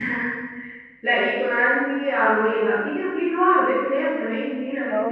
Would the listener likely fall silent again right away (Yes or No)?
Yes